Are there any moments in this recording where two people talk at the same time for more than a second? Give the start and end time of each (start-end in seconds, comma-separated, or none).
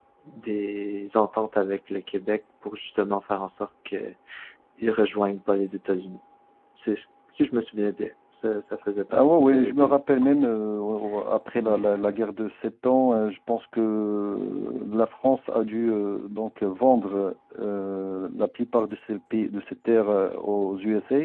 9.1-10.3